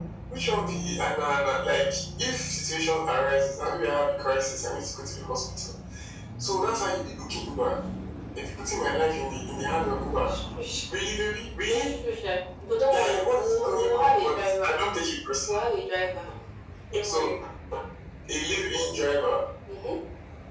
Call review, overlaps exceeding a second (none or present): present